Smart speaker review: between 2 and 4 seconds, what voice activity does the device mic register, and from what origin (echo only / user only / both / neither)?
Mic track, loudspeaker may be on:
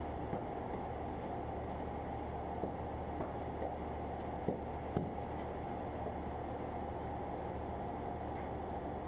neither